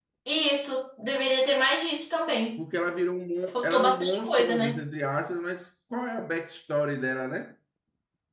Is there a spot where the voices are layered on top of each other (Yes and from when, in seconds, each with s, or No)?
Yes, from 3.5 s